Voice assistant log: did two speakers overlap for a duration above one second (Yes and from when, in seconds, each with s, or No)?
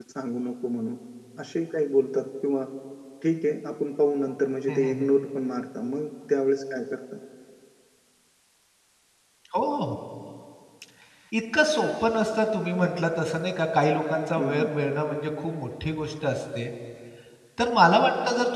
No